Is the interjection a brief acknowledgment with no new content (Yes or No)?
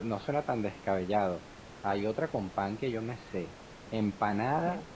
Yes